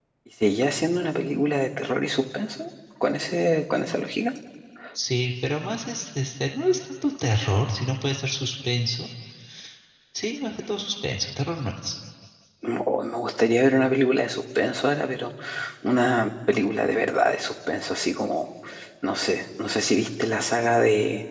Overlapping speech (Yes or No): No